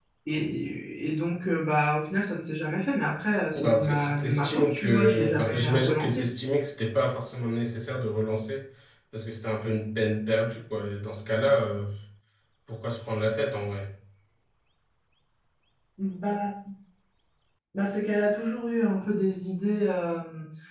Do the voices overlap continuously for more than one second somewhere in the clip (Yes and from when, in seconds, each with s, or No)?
Yes, from 3.5 s